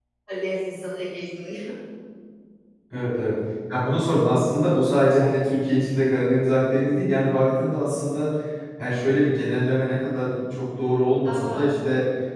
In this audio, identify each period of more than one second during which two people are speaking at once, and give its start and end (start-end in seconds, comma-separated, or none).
none